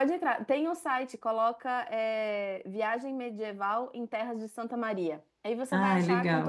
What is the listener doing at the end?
listening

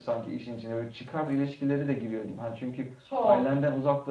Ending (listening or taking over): listening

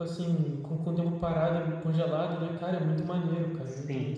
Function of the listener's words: taking over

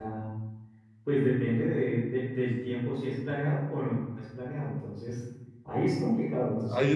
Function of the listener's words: taking over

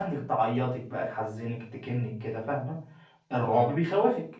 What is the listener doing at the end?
listening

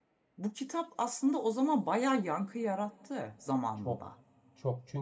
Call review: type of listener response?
taking over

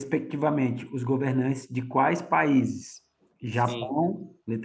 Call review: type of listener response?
listening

